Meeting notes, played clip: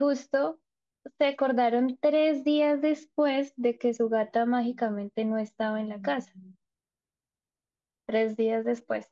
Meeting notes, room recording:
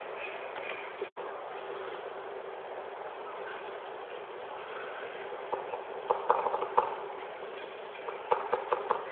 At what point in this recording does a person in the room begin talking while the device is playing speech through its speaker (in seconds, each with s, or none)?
none